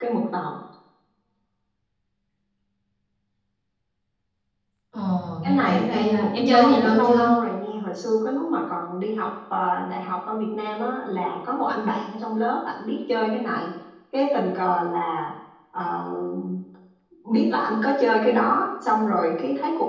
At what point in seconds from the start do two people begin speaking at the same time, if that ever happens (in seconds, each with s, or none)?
5.4 s